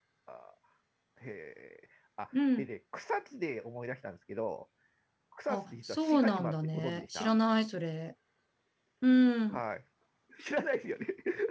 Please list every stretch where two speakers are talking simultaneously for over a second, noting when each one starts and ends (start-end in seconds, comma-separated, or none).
5.5-7.3